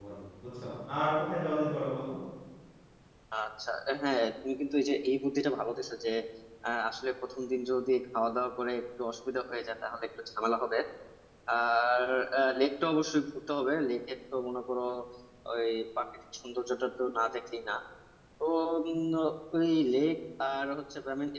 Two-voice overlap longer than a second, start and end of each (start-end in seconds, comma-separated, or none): none